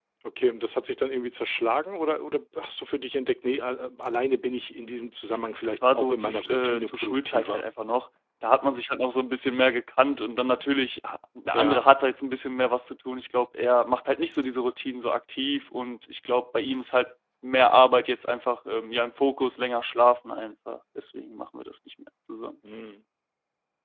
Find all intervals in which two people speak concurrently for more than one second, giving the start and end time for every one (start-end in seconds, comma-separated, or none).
5.6-7.6